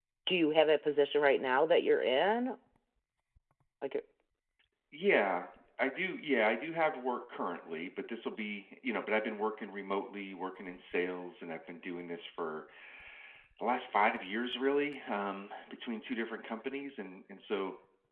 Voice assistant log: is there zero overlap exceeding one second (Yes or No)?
Yes